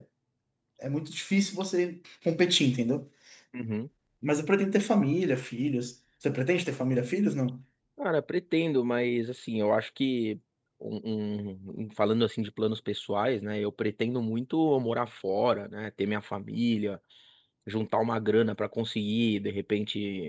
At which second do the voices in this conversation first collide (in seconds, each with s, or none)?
none